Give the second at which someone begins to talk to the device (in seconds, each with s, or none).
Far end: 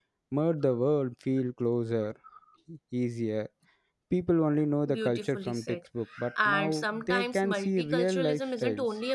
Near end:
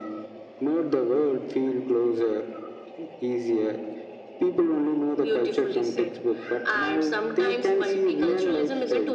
none